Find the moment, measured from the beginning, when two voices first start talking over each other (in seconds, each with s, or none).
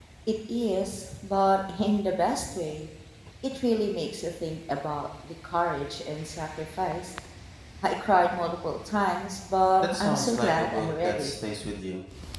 9.8 s